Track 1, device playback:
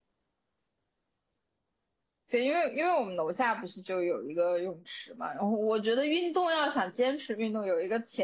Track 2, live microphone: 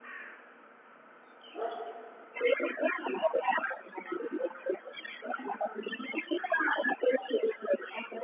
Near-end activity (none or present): none